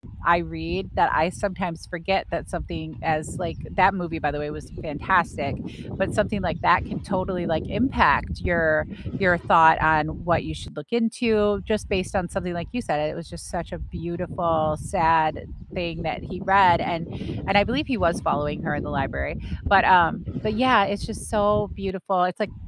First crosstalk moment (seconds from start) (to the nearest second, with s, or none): none